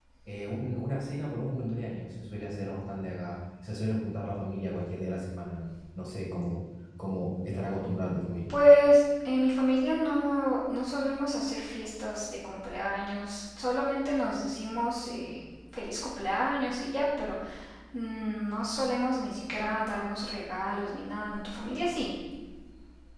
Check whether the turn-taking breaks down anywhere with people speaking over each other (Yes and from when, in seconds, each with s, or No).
No